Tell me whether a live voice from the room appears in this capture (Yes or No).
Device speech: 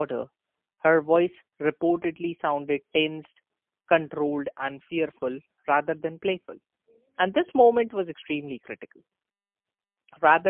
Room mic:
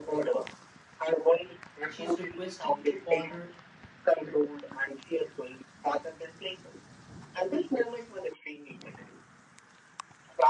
Yes